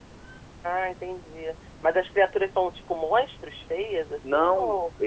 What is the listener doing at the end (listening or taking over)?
taking over